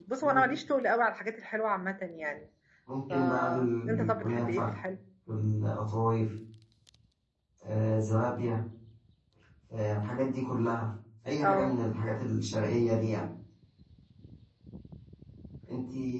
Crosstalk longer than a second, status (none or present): present